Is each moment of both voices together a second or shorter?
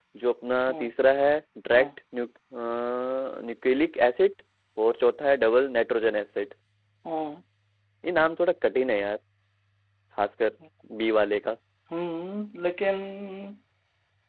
Yes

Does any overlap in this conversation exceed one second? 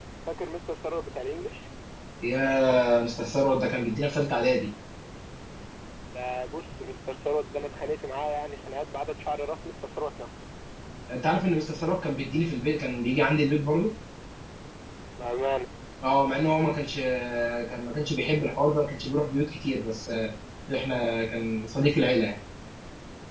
No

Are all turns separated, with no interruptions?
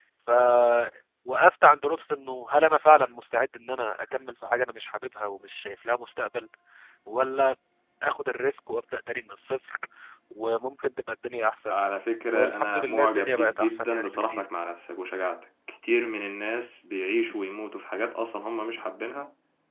No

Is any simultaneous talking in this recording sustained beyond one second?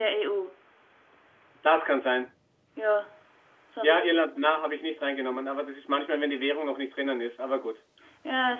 No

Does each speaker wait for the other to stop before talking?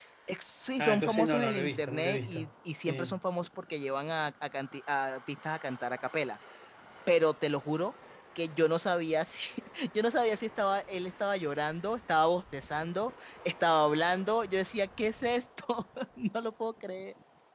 No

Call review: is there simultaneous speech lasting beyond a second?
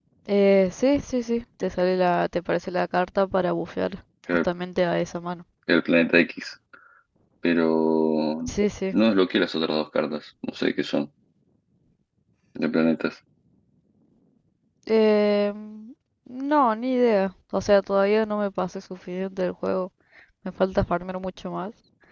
No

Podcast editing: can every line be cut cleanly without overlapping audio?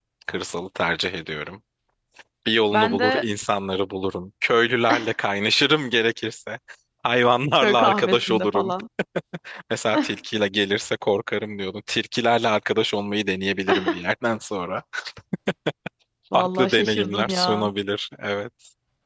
No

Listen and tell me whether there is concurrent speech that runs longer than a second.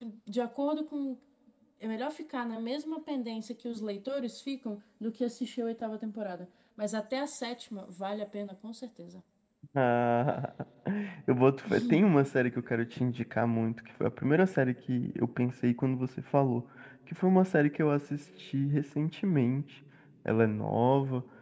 No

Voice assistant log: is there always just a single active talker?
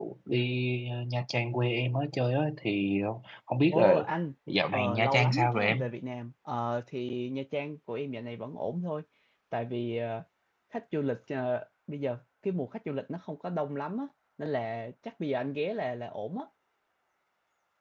No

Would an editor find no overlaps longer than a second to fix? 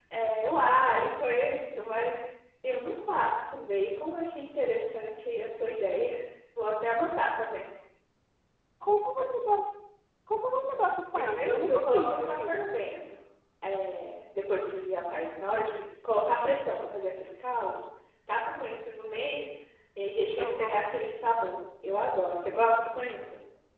No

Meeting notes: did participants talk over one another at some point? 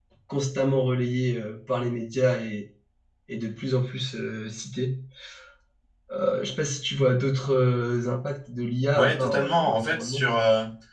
Yes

